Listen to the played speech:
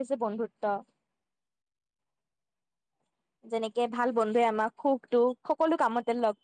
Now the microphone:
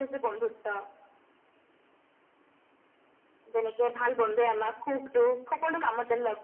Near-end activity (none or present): none